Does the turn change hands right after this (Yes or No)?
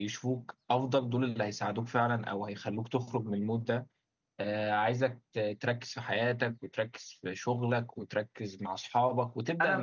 Yes